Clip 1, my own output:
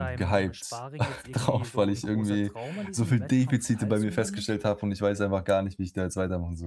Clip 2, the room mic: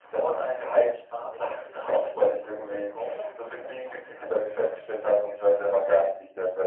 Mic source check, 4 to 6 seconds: echo only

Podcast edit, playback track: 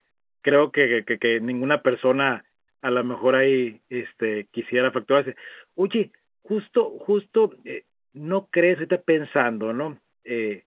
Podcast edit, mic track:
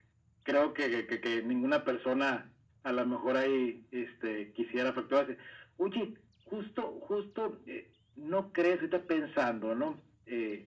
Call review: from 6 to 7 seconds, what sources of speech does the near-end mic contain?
echo only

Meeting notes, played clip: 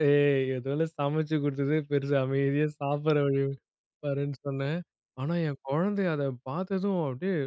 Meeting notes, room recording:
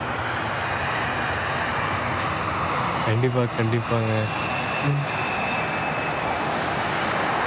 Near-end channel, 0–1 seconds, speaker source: neither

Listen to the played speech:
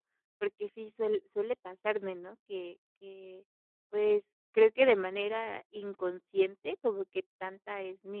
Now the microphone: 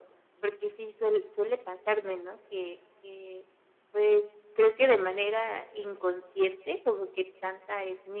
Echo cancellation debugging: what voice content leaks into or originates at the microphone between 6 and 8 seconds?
echo only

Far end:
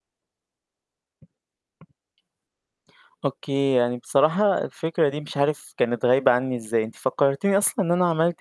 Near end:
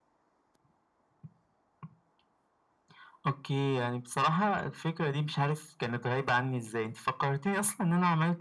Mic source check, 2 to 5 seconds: echo only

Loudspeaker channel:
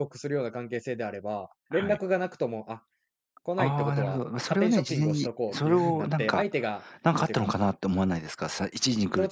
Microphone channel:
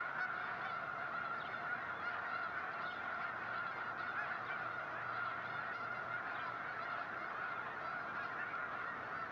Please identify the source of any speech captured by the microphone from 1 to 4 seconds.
neither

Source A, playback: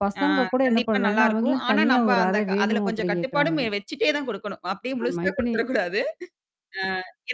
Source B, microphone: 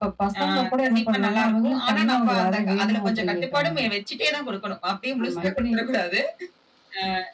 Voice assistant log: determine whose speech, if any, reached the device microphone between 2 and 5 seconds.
echo only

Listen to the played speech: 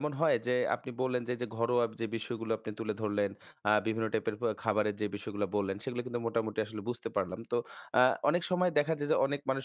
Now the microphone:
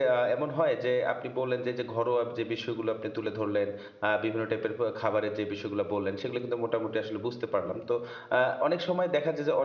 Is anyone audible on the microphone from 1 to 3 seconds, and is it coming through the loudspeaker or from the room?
echo only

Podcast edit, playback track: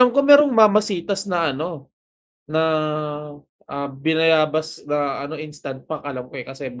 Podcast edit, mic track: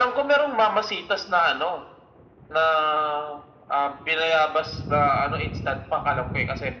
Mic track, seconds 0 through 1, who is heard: echo only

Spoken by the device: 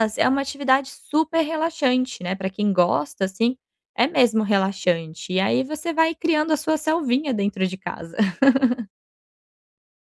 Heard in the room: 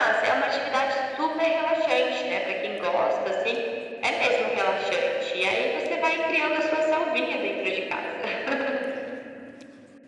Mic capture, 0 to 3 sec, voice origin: echo only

